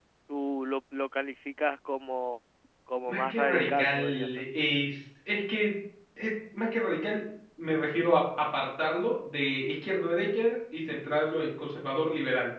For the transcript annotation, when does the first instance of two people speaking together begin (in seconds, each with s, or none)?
3.1 s